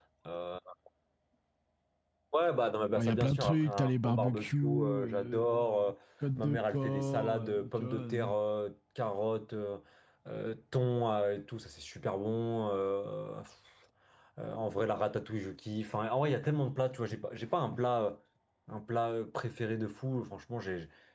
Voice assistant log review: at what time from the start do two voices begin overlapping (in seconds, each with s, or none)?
3.0 s